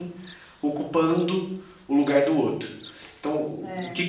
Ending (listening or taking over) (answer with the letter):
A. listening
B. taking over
A